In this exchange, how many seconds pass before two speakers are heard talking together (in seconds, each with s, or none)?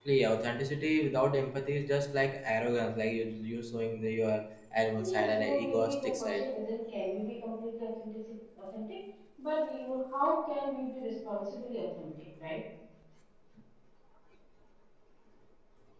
5.0 s